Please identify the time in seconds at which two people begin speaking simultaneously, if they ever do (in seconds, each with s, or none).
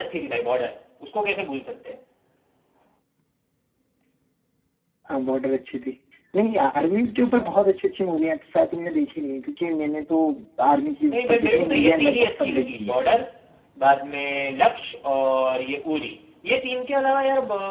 11.1 s